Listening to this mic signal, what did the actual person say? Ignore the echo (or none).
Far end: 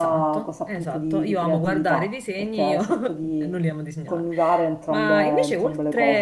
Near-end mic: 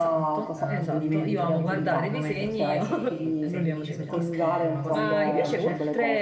eh, godimento, no, di quella in quel momento stai, sei felice perché scrivi, fai una cosa che ti piace,